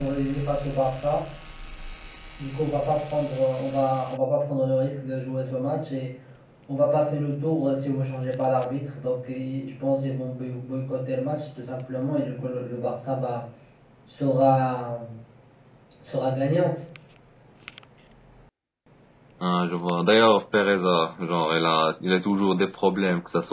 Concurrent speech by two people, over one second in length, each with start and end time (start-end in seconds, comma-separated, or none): none